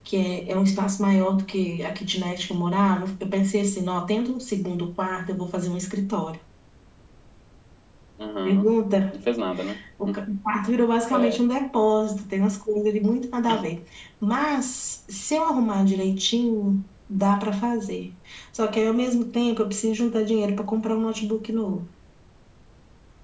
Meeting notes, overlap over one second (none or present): none